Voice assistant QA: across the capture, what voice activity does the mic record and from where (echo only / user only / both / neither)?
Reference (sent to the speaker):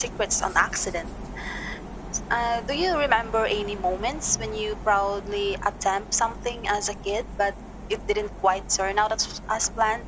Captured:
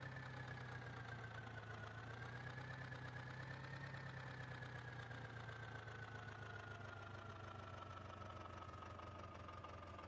neither